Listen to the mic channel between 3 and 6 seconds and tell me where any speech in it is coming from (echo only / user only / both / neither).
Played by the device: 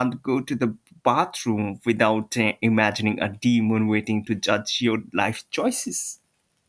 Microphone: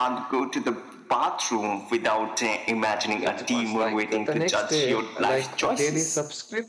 both